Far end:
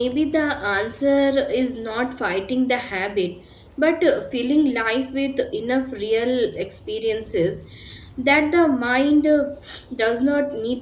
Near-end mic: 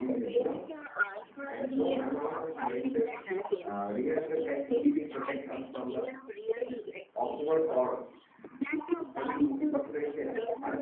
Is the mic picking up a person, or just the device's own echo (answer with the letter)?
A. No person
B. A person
B